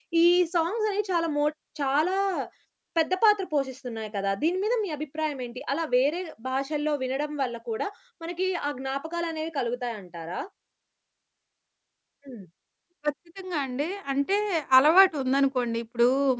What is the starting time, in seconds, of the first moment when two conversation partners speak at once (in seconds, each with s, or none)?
none